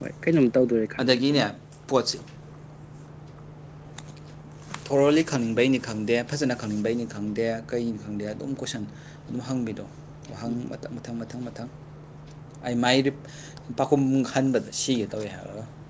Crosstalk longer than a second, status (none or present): none